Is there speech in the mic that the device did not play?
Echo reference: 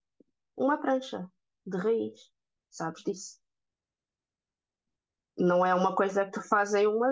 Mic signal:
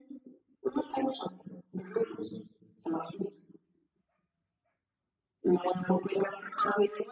No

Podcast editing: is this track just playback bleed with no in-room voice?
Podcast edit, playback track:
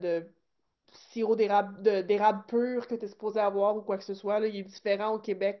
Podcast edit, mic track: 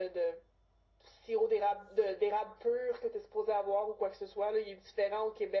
Yes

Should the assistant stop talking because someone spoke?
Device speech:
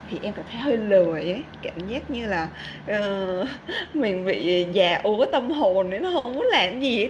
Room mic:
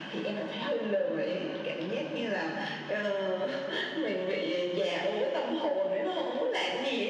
No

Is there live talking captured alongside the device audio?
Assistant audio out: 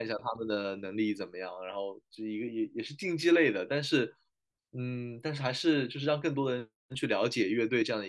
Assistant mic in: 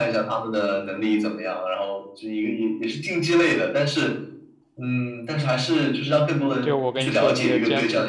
Yes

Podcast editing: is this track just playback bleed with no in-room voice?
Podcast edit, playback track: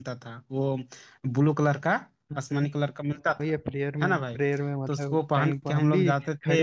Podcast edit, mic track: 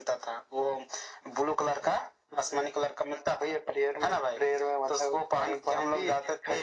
Yes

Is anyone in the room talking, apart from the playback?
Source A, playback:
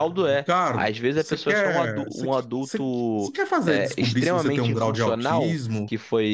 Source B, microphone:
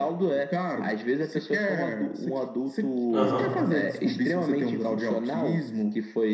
Yes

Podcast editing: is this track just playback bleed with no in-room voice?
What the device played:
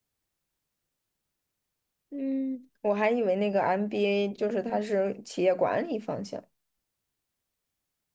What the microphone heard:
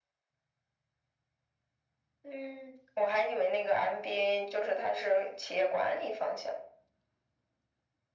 Yes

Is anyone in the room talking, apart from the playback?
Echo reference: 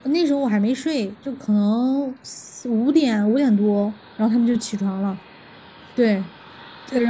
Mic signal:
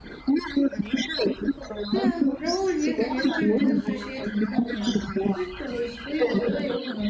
Yes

